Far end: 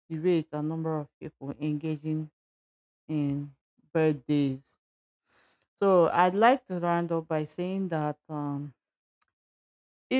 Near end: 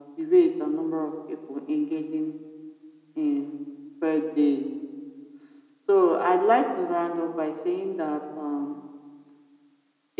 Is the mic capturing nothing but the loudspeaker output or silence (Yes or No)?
Yes